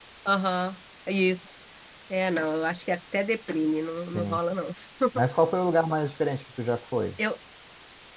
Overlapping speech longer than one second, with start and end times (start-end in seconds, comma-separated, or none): none